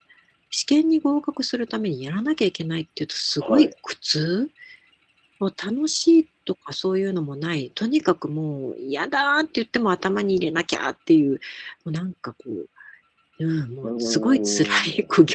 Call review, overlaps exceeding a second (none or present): present